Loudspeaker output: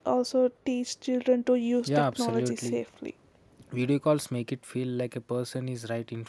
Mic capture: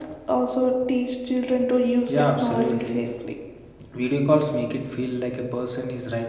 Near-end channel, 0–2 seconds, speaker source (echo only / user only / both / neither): echo only